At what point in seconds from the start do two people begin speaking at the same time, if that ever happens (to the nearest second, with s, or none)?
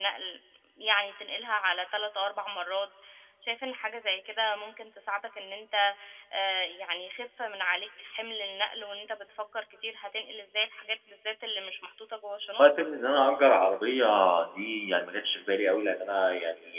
none